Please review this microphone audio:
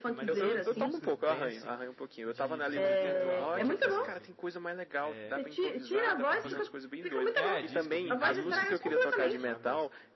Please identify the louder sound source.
echo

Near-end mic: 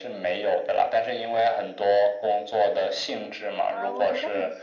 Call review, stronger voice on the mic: echo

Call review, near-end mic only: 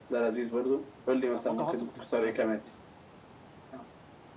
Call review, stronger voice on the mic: echo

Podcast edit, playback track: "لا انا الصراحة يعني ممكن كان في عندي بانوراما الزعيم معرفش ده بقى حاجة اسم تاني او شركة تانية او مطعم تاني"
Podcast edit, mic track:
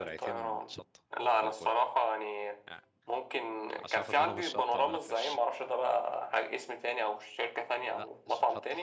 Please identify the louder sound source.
echo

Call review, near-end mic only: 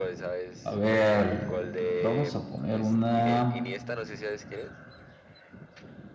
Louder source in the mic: user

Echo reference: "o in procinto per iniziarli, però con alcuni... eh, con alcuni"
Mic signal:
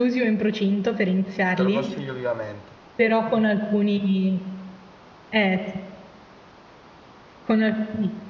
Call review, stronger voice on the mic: echo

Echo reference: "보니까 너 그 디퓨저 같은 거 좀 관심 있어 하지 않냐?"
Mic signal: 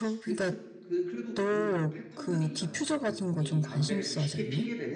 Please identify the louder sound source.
echo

